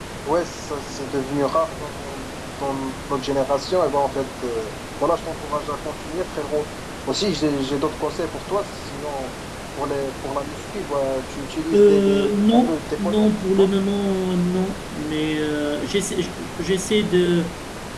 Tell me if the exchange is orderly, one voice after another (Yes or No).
No